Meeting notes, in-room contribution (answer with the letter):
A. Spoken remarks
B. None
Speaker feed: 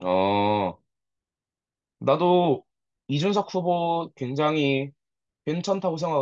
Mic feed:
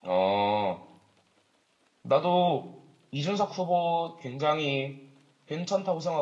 B